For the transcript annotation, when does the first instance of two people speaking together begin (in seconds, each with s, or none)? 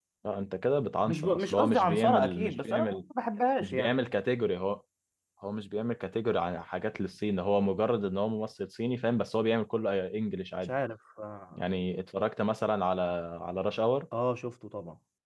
1.1 s